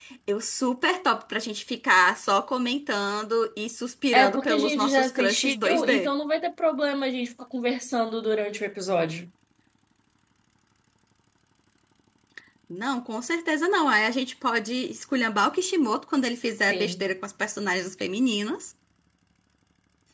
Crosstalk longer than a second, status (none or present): present